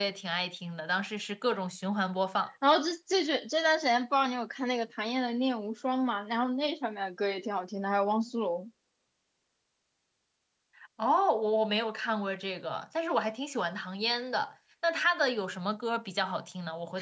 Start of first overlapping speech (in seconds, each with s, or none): none